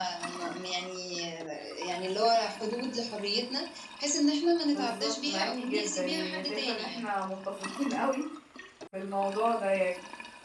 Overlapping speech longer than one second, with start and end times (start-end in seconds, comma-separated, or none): 4.7-7.0